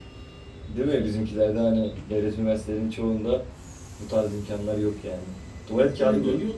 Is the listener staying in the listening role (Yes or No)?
No